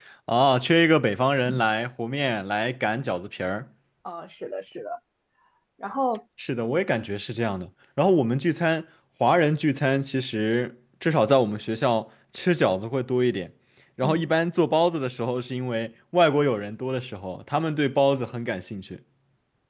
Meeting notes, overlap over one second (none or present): none